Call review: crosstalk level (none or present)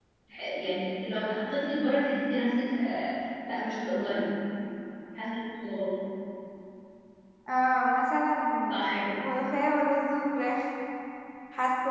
none